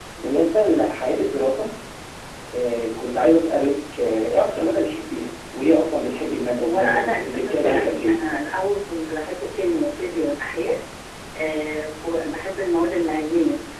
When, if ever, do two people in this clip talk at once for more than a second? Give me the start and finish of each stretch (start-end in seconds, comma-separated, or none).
6.6-8.2